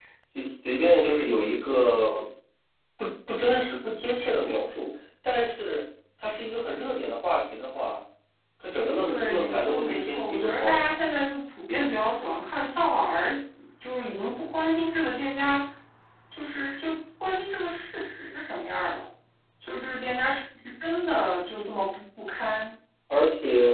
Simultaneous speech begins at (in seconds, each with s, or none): 9.1 s